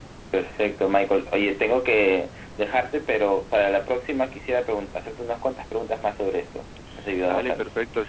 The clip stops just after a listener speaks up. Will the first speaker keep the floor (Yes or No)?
No